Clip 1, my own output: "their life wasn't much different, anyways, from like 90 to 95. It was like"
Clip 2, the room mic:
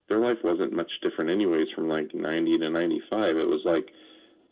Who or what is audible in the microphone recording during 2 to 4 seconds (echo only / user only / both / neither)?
echo only